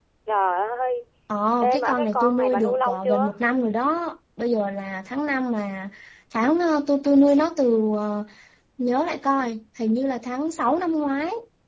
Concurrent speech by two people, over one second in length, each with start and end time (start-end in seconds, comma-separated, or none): 1.6-3.3